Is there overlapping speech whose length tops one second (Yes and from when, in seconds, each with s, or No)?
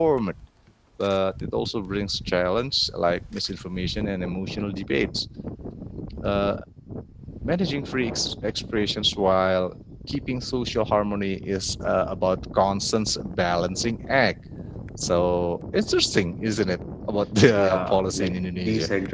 Yes, from 17.5 s